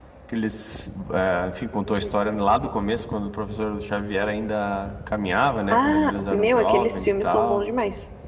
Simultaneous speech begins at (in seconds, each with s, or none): 5.7 s